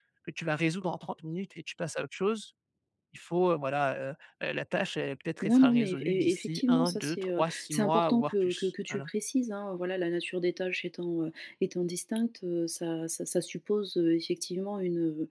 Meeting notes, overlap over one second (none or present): present